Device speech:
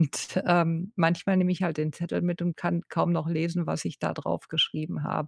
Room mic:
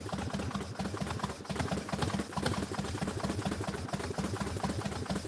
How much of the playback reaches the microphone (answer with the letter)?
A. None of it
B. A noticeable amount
A